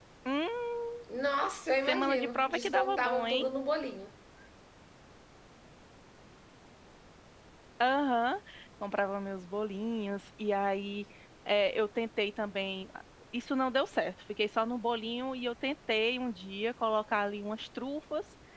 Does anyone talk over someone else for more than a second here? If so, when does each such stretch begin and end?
1.8-3.4

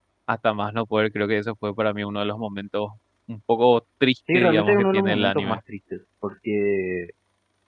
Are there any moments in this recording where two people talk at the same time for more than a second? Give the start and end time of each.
4.3-5.6

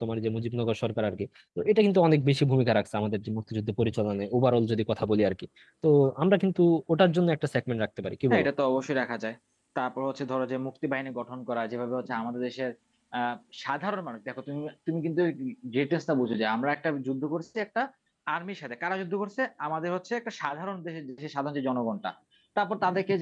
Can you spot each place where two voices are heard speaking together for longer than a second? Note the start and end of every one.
none

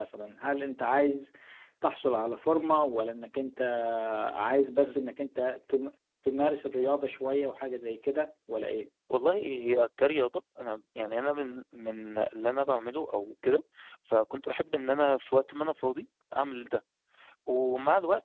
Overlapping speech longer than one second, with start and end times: none

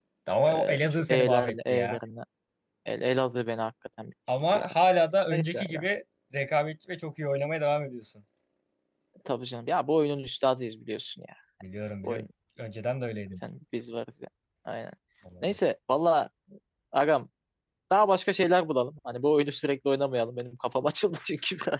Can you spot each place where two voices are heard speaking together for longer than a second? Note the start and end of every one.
0.5-2.0

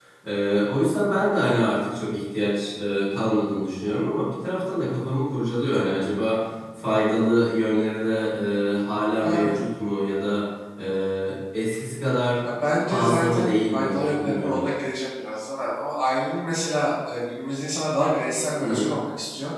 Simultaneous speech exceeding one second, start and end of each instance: 12.9-14.7

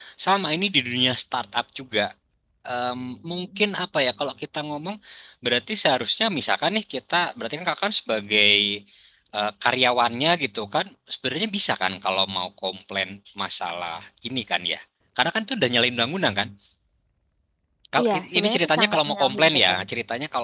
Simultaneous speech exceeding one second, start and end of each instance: 18.0-19.8

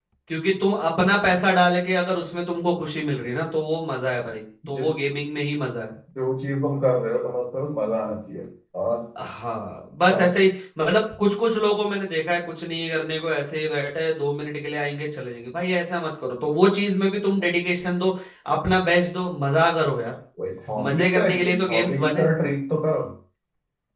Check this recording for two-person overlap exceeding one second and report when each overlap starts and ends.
20.9-22.2

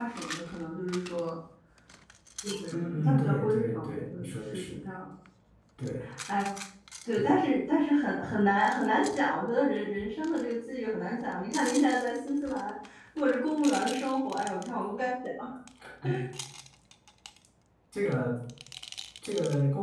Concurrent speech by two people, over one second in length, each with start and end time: 2.7-4.8

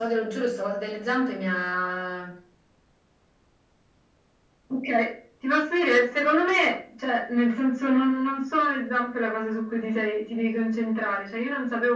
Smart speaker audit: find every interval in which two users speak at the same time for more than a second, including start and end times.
none

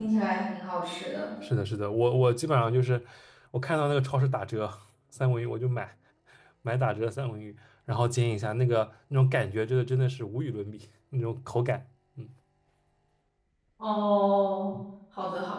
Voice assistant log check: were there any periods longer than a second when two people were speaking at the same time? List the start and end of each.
none

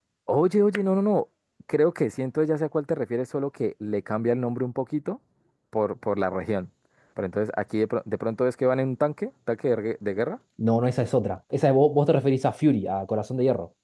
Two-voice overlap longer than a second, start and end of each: none

